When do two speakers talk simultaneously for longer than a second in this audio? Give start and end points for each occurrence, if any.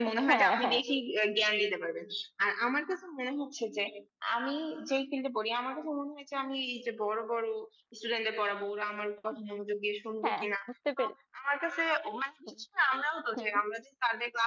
none

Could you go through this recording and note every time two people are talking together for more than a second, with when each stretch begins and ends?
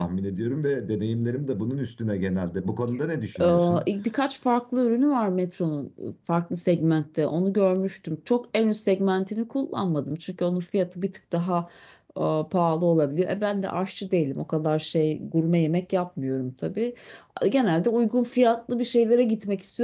none

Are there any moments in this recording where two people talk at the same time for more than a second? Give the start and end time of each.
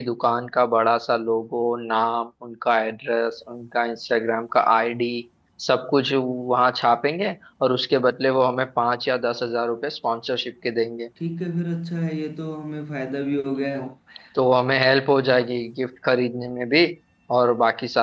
none

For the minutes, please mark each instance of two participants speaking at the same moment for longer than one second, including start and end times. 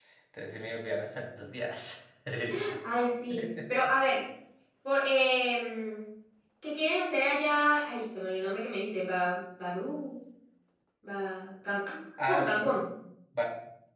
none

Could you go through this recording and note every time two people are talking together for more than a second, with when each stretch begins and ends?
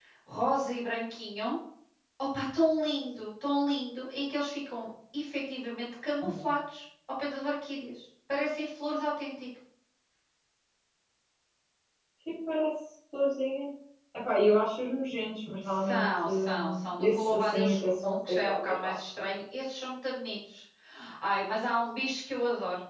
15.8-18.9

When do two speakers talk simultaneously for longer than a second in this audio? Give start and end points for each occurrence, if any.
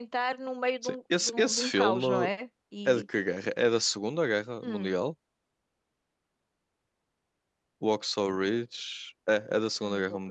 0.8-2.0

